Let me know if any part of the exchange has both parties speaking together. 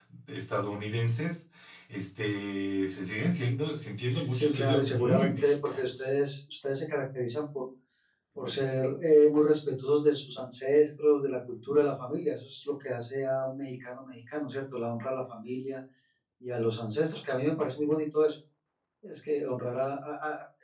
Yes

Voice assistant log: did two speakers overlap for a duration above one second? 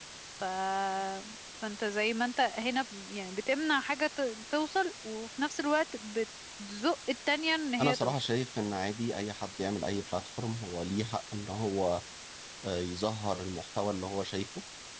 No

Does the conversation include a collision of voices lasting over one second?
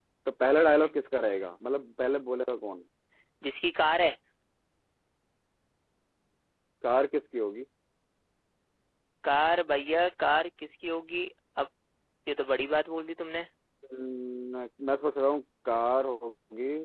No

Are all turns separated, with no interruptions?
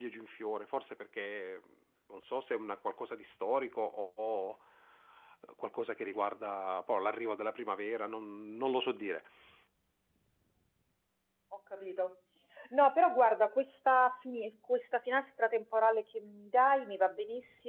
Yes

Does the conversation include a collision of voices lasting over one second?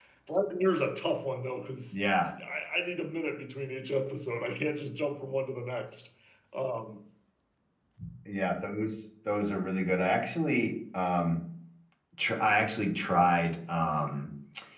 No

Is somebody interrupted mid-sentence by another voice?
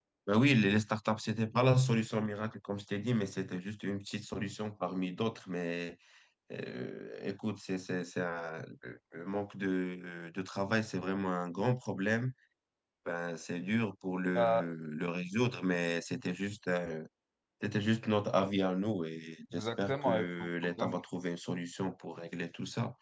Yes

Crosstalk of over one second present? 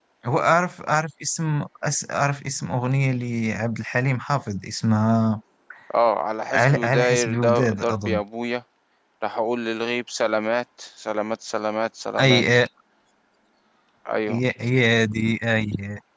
Yes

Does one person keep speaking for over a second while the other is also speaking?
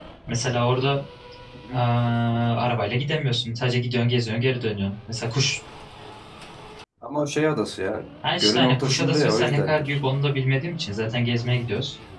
Yes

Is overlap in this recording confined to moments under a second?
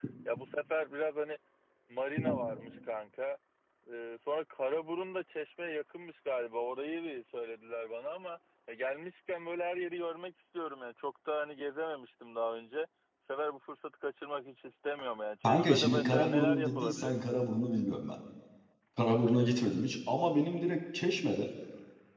No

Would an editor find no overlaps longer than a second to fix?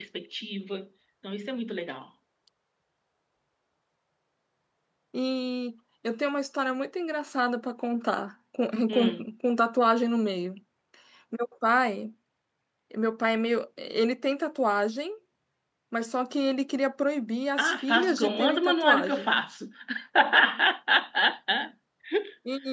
No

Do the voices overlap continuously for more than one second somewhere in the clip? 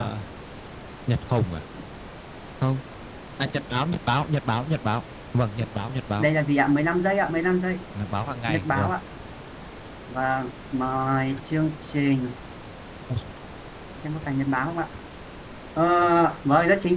No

